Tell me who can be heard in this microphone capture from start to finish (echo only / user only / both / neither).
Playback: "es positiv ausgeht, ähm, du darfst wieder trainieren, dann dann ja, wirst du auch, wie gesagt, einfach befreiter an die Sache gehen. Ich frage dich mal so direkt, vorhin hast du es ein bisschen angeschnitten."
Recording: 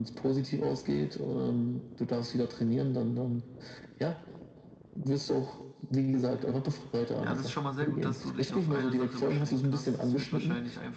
both